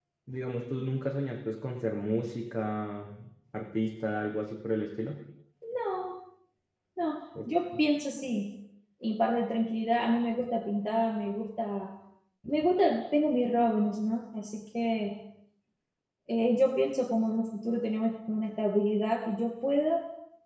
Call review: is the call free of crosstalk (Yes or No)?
Yes